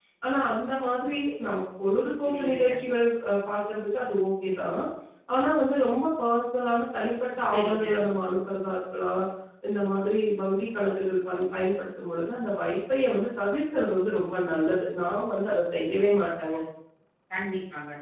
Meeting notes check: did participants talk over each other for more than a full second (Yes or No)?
No